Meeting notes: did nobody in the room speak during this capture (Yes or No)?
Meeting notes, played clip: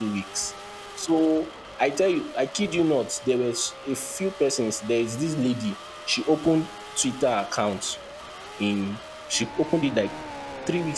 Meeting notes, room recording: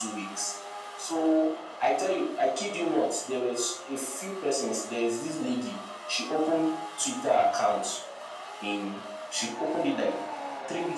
Yes